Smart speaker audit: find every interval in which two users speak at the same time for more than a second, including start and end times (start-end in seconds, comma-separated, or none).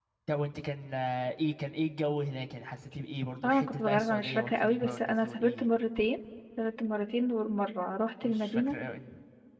3.4-5.7